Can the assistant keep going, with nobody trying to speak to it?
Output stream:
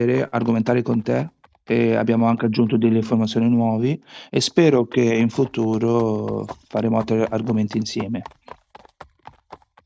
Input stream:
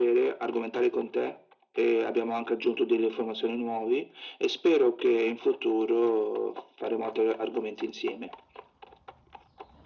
Yes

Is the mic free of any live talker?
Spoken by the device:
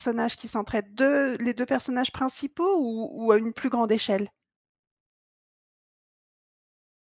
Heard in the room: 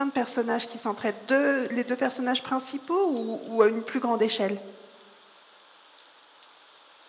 Yes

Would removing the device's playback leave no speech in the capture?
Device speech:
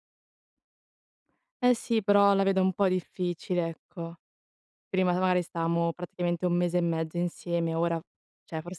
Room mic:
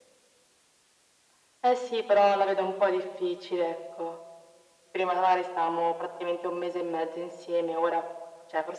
Yes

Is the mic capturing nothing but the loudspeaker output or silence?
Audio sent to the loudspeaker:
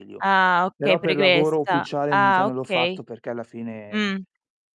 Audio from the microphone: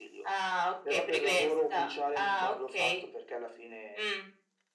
Yes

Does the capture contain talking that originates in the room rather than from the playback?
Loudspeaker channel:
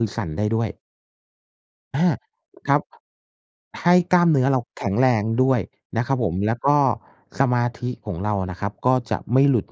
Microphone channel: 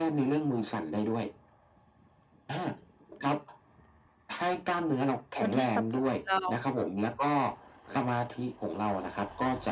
Yes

